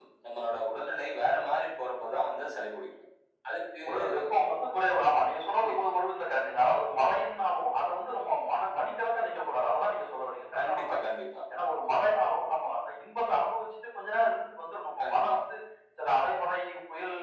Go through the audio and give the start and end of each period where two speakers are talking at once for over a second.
none

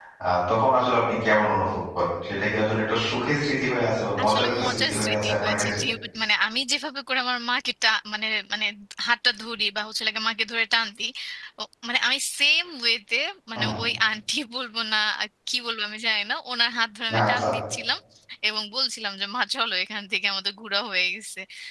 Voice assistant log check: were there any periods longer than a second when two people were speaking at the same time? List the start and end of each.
4.2-5.8

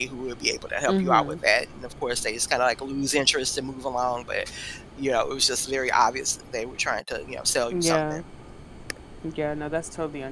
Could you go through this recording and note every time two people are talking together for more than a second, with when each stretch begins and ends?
none

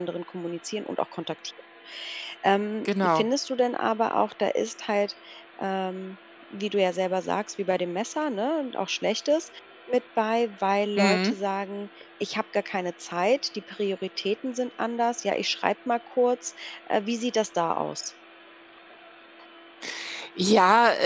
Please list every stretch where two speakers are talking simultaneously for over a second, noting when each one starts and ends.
none

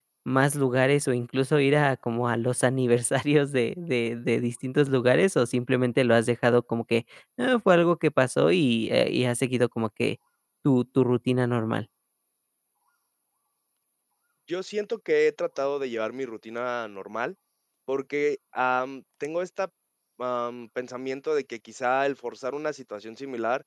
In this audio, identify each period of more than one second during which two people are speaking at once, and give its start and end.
none

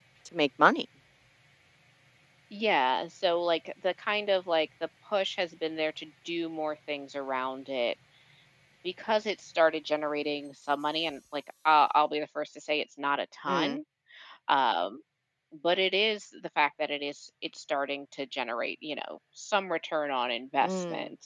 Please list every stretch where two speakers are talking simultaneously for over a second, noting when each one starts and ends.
none

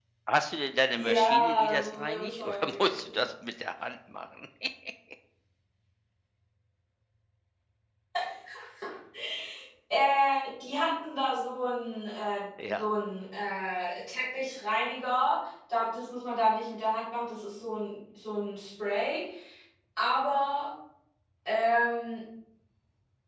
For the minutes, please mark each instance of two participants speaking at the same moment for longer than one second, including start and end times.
0.9-3.2

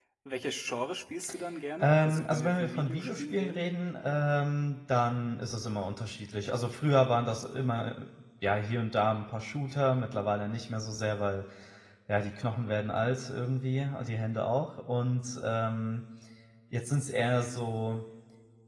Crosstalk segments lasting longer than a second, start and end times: 1.8-3.6

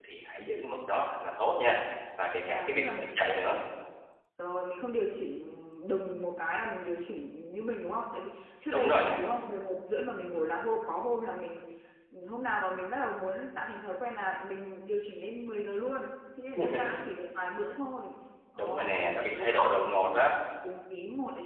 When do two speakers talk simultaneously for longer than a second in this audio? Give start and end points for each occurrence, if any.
18.6-20.3

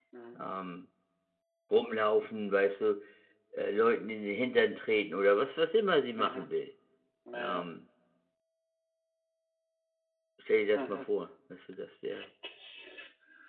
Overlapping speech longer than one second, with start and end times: none

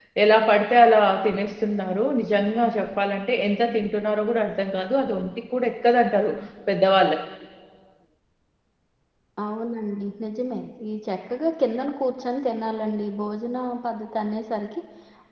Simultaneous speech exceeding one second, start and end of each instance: none

